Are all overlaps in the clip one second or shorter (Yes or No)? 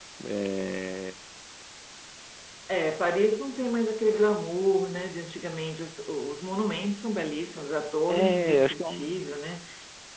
No